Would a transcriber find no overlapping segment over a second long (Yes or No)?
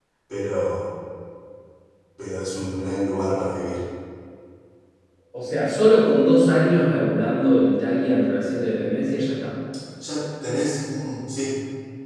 Yes